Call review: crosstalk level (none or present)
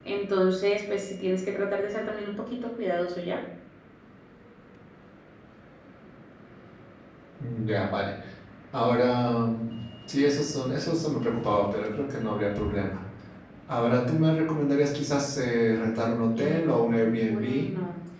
present